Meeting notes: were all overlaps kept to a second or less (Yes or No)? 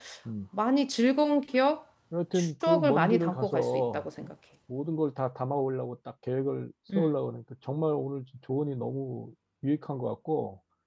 No